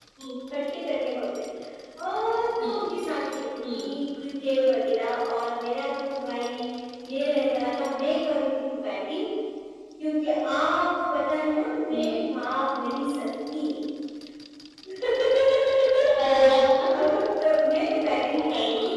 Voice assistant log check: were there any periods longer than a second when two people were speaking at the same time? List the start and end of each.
none

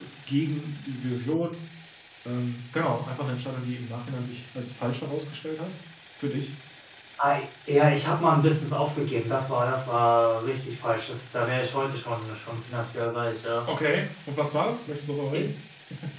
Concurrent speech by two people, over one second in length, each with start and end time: none

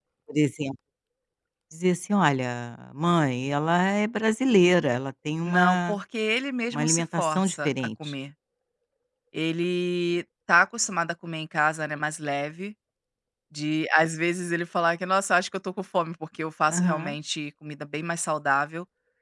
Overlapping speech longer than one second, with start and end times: 6.7-8.1

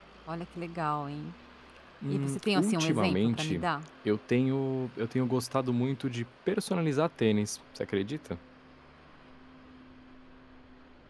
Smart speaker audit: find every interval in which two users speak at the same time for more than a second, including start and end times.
2.1-3.6

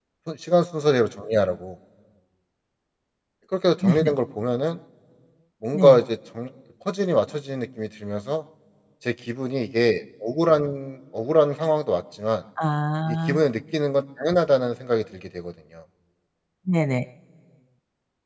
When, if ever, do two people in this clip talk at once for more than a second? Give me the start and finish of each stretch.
none

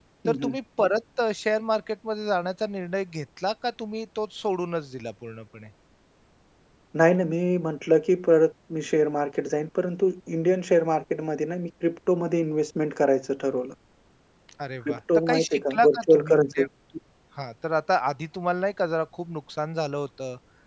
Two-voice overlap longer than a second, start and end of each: 14.9-16.6

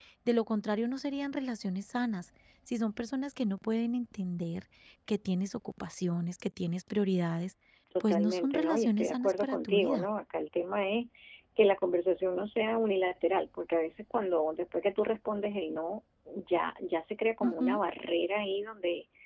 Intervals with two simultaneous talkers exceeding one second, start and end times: 8.0-10.1

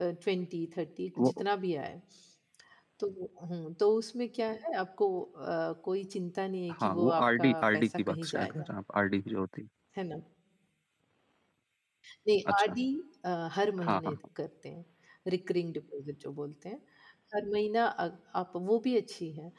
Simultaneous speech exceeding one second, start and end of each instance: 6.7-8.7

